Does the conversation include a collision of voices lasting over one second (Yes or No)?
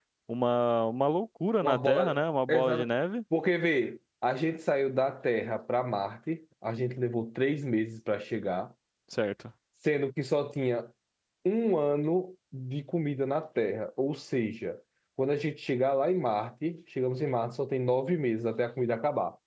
Yes